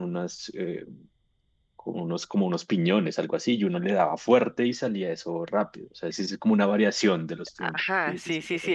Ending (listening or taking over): taking over